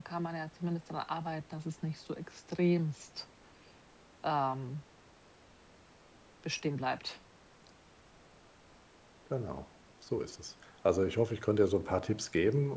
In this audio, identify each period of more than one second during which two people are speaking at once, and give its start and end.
none

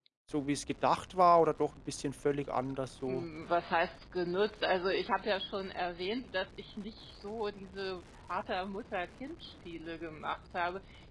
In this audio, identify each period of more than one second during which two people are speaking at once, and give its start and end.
none

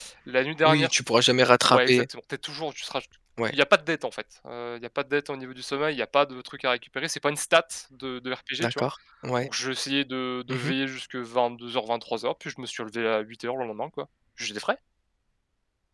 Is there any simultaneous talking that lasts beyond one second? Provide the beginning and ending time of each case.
none

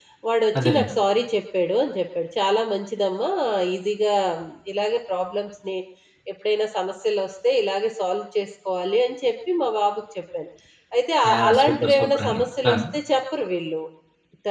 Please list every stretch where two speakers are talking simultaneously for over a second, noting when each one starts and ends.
11.3-12.7

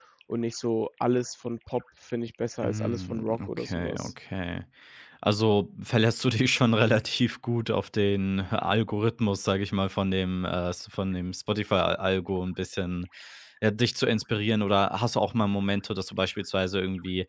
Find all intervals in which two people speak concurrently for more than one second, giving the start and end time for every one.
2.6-4.1

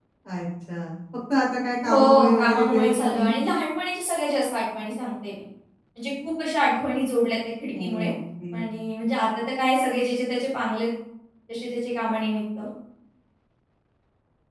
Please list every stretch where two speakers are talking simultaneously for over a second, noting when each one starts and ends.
1.8-3.3

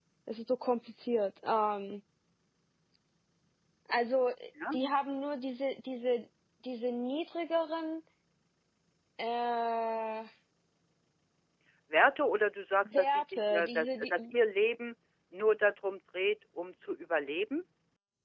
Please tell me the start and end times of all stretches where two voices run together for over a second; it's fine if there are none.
13.0-14.2

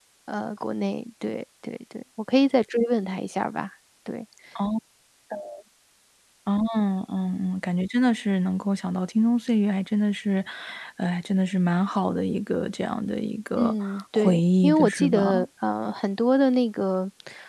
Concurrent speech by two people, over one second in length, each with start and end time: 13.6-15.3

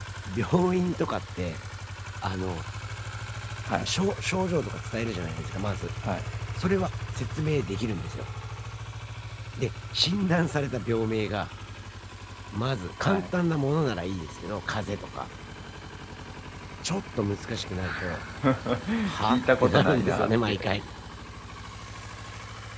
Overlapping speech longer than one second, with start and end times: 19.2-20.6

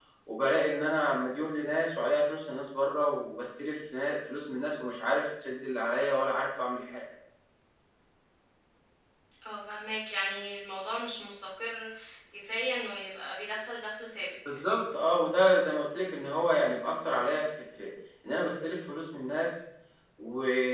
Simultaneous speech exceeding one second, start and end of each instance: none

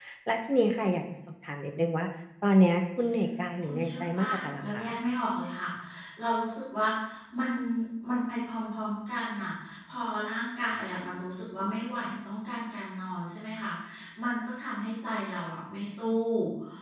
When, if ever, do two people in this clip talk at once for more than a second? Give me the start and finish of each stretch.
3.6-5.0

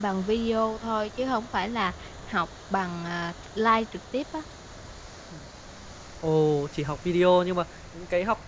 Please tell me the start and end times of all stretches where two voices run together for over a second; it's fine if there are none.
none

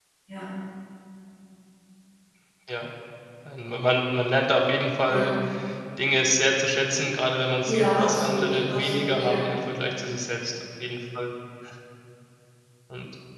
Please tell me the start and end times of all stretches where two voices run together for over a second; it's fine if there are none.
7.7-9.4

